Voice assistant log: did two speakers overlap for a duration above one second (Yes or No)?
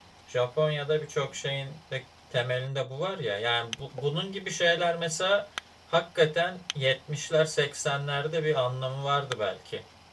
No